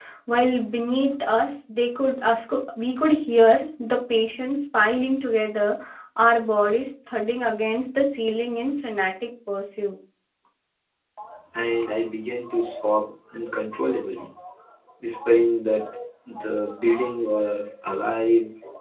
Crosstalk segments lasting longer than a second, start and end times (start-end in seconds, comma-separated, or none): none